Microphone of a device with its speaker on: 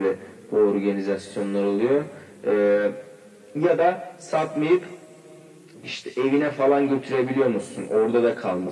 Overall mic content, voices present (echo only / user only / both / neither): echo only